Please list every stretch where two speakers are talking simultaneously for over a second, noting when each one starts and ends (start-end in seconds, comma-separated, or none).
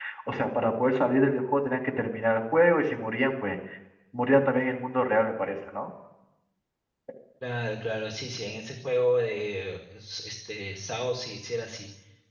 none